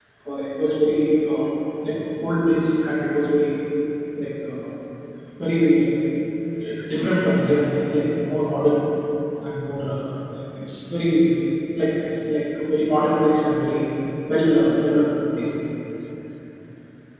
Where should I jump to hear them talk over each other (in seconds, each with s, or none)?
none